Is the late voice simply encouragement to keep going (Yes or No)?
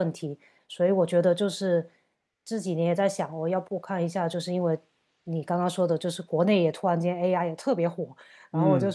Yes